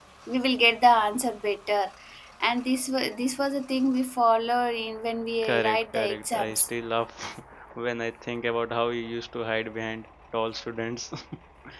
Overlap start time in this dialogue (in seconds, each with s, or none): 5.4 s